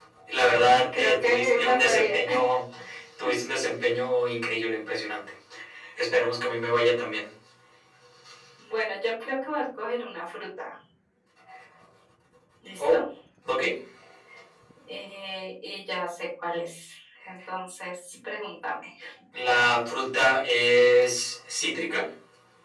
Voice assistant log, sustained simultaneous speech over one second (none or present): present